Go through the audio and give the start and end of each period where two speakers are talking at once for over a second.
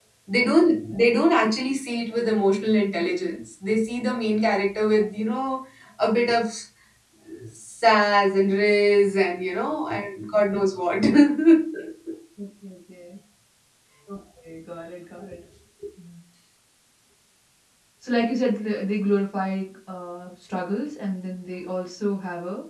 none

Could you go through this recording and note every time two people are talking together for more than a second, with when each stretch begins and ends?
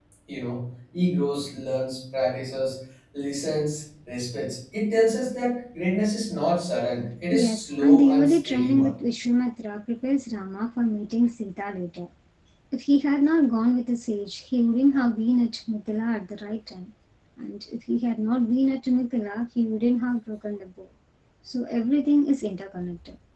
7.3-8.9

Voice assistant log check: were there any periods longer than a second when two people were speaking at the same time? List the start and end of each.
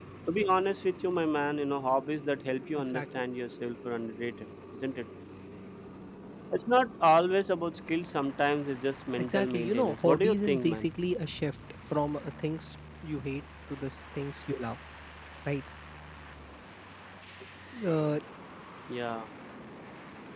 9.2-10.9

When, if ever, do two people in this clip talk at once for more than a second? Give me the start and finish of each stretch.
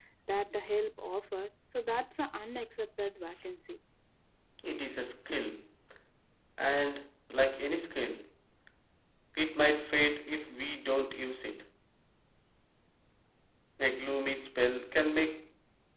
none

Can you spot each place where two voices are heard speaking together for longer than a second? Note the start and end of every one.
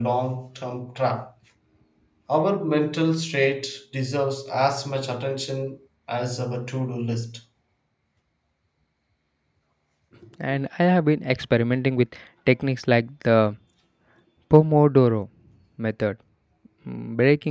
none

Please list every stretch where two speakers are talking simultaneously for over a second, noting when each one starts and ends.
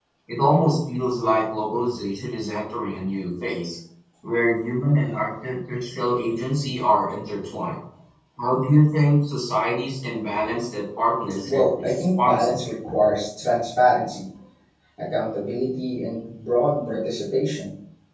11.4-12.7

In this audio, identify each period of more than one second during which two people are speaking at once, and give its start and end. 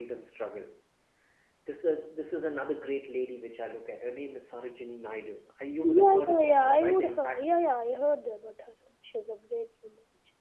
5.8-7.5

